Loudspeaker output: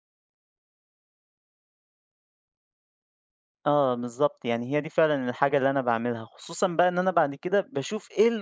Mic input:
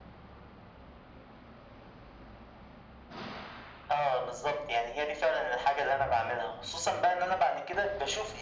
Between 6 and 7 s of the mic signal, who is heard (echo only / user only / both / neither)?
echo only